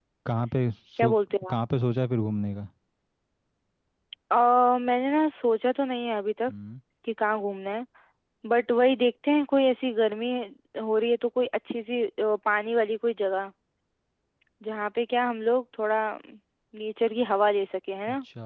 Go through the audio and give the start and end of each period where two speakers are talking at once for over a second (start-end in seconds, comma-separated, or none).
none